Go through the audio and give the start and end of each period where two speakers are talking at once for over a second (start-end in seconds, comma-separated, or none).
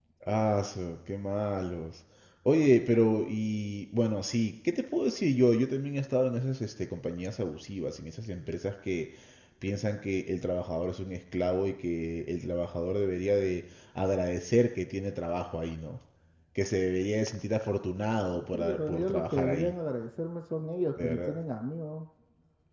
18.4-19.7